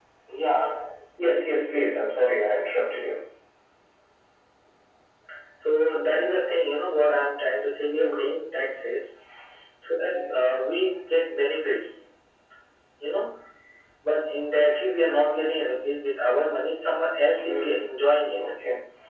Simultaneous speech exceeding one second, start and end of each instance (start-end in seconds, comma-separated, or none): none